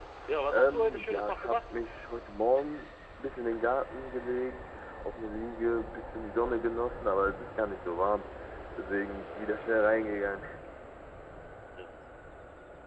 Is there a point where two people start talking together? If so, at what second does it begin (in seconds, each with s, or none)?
0.5 s